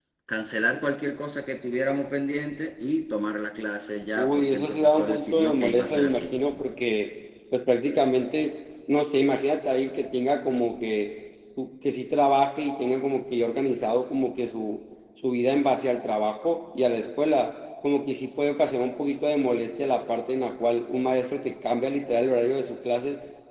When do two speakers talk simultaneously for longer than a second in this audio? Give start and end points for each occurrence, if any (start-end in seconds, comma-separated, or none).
4.2-6.2